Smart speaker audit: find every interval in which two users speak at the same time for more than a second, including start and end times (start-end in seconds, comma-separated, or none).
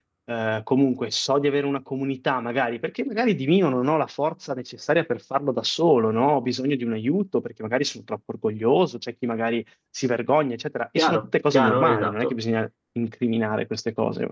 11.0-12.4